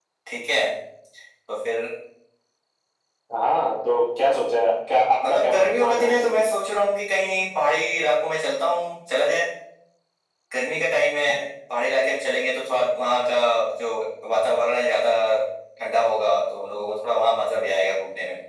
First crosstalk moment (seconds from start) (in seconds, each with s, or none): 5.2 s